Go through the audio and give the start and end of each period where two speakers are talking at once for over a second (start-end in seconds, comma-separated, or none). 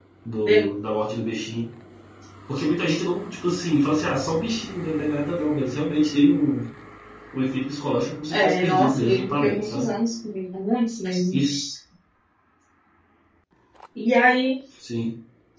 8.3-9.9